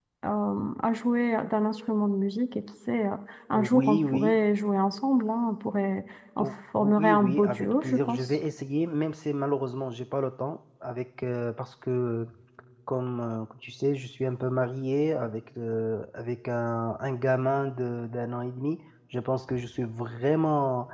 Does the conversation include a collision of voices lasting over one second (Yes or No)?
Yes